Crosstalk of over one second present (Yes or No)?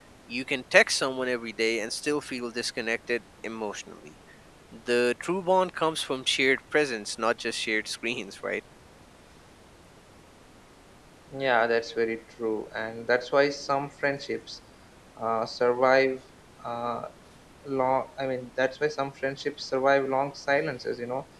No